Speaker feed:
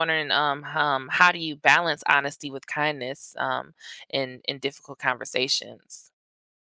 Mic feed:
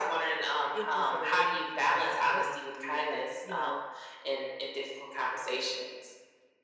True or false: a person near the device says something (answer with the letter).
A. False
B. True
B